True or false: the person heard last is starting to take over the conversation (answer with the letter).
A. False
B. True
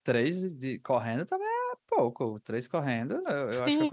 B